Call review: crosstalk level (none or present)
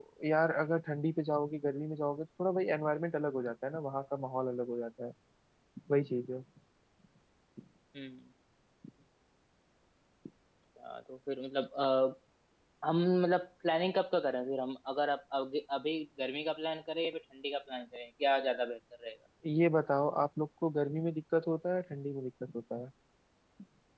none